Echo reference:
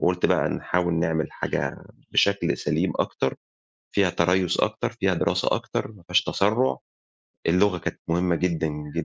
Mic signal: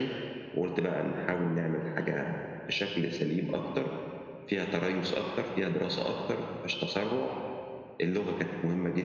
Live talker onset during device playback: none

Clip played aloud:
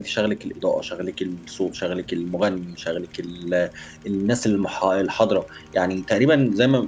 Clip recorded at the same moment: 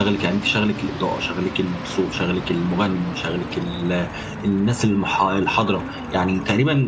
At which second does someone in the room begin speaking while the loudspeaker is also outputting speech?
none

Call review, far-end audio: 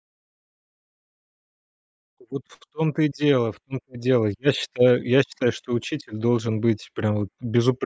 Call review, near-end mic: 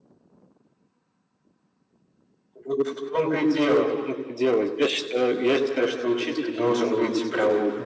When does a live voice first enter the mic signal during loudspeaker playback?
none

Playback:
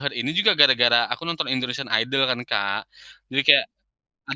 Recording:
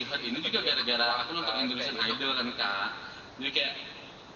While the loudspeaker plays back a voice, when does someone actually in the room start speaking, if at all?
0.3 s

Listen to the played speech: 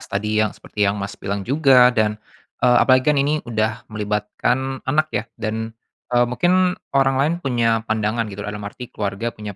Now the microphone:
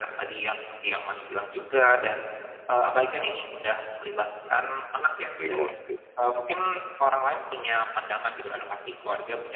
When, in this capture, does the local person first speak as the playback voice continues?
5.4 s

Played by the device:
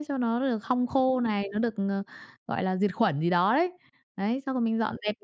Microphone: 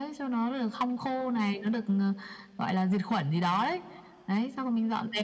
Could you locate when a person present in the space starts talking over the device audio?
none

